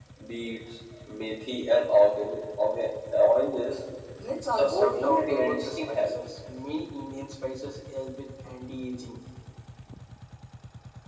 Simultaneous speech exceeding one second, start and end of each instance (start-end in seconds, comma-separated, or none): 4.5-6.2